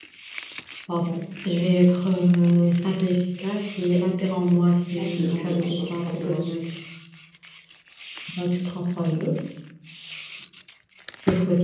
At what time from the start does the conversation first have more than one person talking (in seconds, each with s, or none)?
5.0 s